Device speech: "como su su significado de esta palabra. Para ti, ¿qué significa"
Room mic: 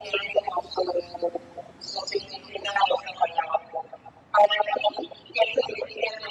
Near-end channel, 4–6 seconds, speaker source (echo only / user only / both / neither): echo only